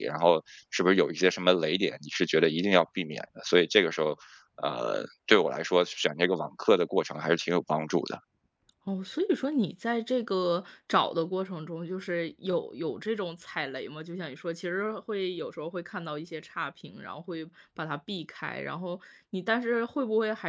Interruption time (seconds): none

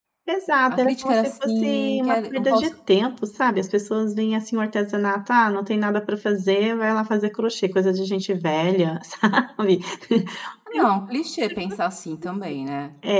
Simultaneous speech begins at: 0.7 s

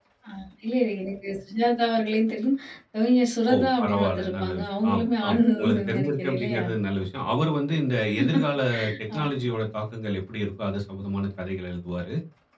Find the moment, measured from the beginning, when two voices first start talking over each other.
3.5 s

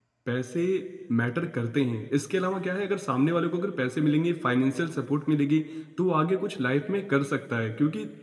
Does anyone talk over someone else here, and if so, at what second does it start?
none

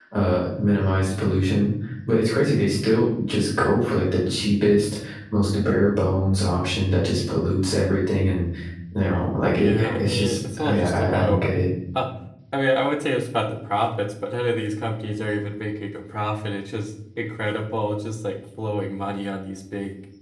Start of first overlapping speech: 9.5 s

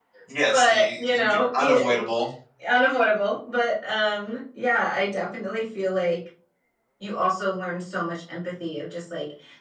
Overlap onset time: 0.5 s

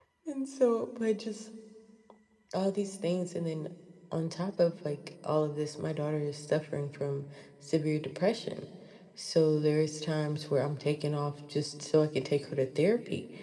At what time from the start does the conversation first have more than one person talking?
none

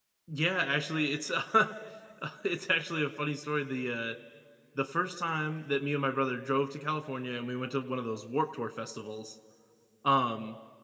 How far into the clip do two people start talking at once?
none

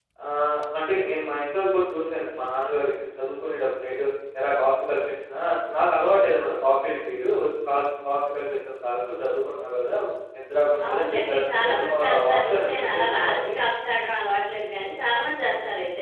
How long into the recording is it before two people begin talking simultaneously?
10.8 s

